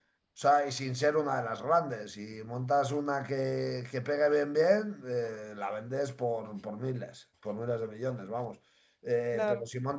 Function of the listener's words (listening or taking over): listening